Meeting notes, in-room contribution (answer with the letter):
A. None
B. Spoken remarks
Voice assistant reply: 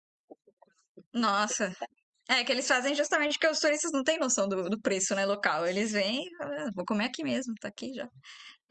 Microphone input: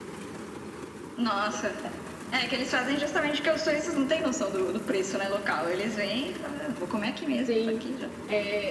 B